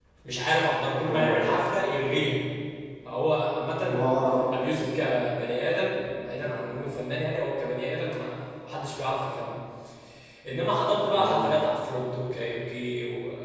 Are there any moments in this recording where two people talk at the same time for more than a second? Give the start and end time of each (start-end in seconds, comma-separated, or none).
none